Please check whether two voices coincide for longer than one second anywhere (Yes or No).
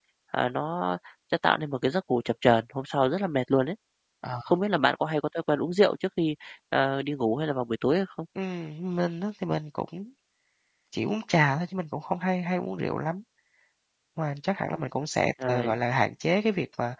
No